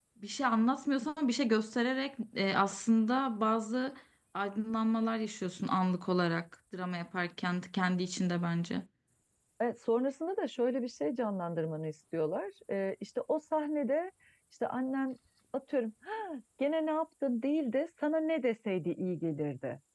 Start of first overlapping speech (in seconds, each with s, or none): none